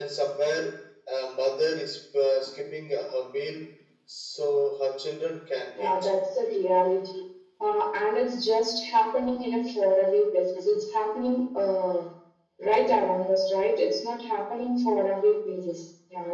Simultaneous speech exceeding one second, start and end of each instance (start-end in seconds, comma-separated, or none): none